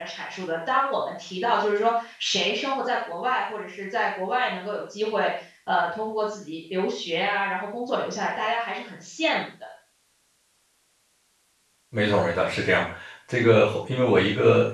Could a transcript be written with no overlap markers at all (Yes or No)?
Yes